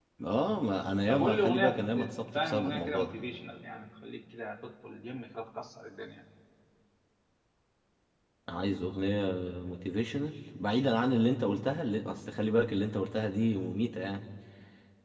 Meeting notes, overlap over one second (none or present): present